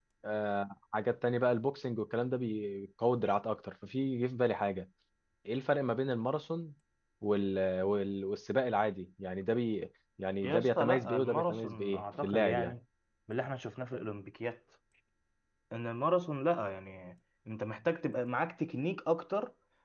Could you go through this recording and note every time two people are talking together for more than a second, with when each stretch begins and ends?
10.4-12.7

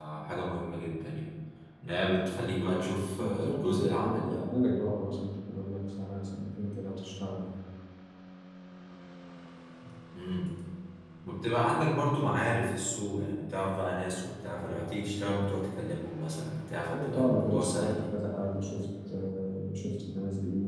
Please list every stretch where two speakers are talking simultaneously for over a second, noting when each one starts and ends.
3.2-4.4, 16.9-18.1

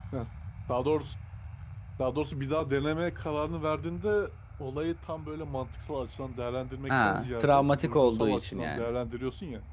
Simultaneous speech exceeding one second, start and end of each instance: 6.9-8.9

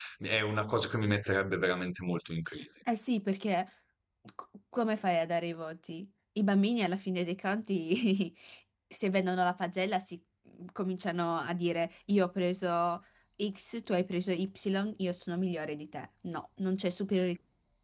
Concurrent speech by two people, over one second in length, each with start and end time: none

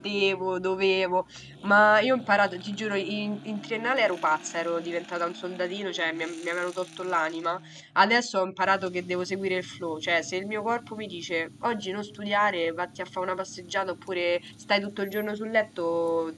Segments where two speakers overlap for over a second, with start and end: none

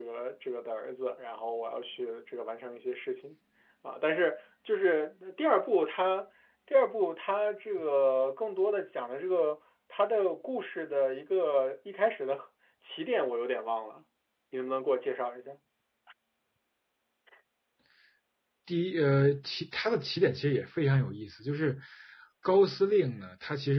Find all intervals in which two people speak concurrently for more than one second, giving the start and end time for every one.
none

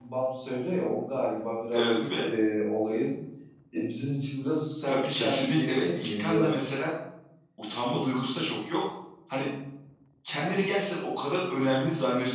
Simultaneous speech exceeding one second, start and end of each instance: 4.9-6.5

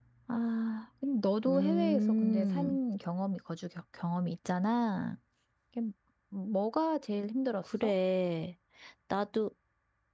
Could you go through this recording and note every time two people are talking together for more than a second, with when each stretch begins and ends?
1.5-2.8

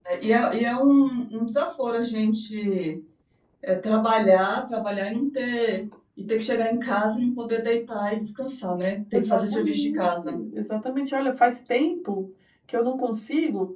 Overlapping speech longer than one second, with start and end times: 9.1-10.4

